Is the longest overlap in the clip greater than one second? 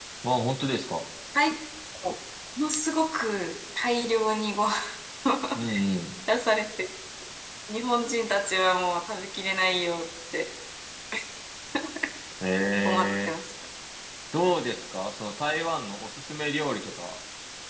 No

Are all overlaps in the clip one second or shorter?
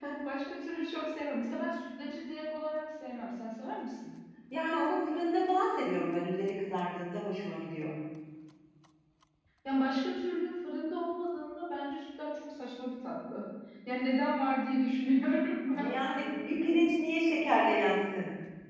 Yes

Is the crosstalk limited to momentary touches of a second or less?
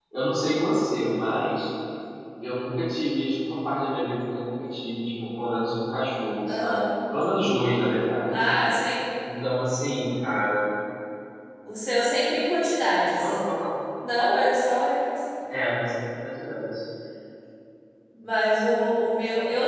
Yes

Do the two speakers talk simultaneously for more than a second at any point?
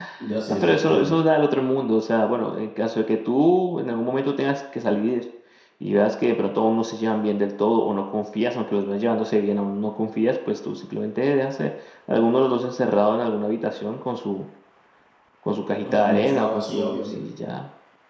Yes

